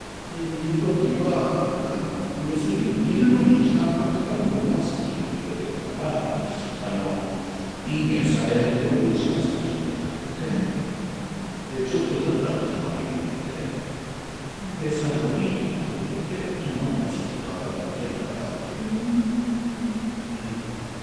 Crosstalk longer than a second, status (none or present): none